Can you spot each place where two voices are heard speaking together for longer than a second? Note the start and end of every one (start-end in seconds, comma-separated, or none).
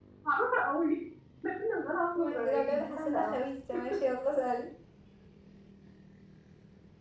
2.1-3.4